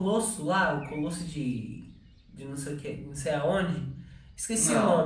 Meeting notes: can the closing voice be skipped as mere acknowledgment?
Yes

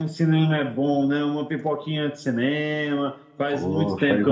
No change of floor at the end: No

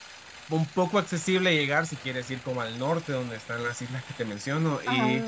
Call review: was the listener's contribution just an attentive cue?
Yes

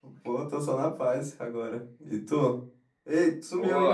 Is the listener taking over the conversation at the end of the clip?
Yes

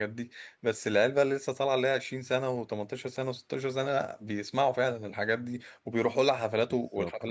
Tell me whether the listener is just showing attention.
No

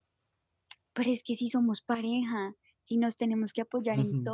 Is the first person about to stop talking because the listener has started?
Yes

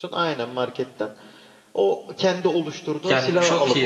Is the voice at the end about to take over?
Yes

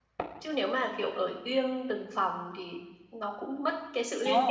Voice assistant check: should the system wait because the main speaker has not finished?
No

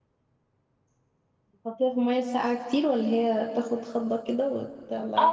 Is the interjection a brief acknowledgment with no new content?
No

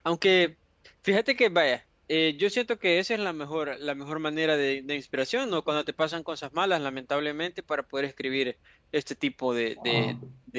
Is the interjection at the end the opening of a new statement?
No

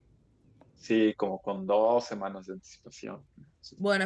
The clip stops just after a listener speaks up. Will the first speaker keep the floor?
No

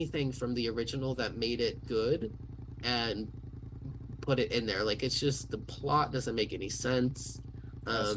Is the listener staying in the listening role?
No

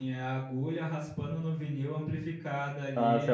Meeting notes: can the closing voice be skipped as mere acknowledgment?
No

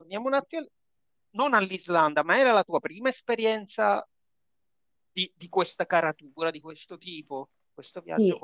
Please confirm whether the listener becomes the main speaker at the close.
Yes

